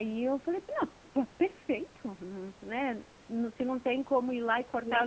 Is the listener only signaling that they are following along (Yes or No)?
No